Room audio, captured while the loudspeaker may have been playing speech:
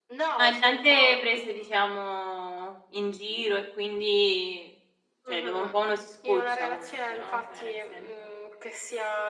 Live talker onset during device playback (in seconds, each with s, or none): 0.4 s